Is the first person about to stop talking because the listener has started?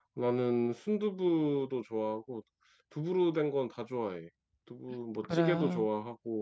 No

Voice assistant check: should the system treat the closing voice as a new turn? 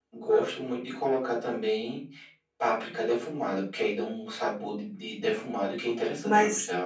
Yes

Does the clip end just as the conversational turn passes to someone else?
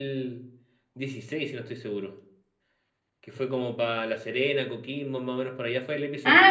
Yes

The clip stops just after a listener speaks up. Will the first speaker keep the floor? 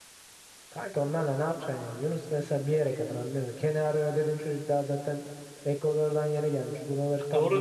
No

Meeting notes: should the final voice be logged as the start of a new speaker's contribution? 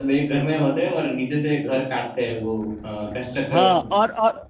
Yes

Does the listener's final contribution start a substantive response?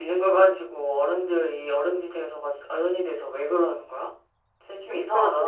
Yes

